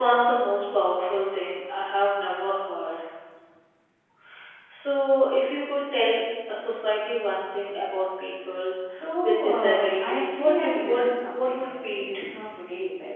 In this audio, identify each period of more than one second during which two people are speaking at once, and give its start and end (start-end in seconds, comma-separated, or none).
9.2-12.2